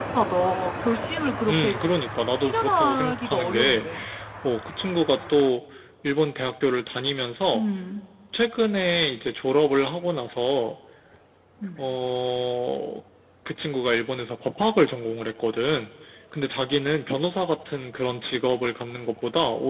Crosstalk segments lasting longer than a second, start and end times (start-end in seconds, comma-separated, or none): 2.4-3.8